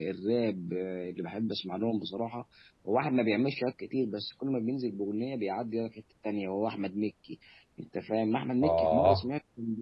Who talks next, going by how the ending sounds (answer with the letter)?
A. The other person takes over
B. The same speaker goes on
B